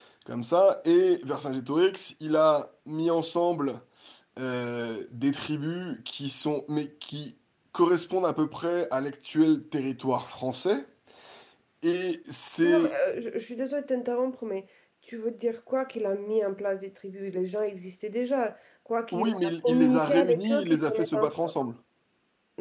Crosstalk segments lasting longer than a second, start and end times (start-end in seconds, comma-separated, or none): 19.1-21.5